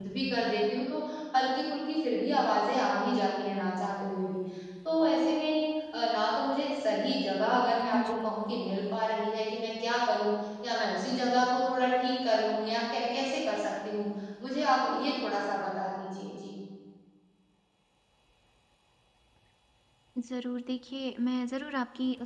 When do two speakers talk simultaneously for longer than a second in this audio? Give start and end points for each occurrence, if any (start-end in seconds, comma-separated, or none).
none